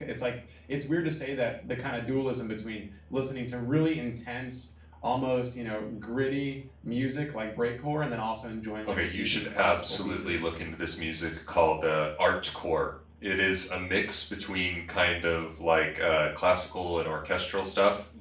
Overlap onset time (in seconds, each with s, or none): 8.9 s